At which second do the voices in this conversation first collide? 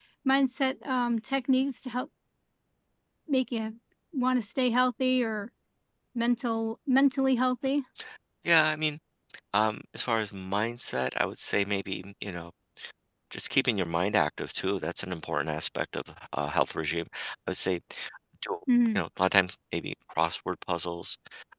none

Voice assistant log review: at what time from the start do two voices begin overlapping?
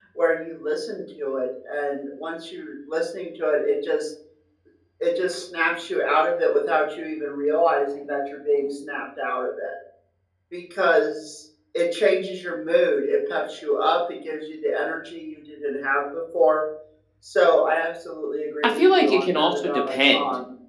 18.6 s

